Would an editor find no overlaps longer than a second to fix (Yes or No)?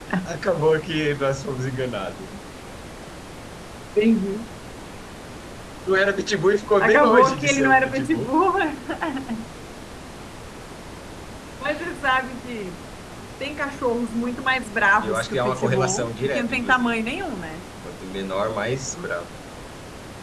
No